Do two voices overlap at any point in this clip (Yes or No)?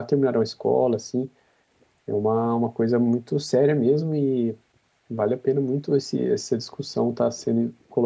No